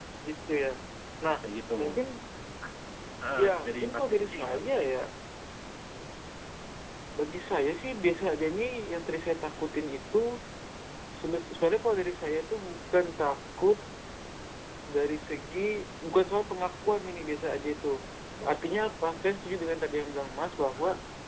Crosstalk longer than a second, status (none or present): present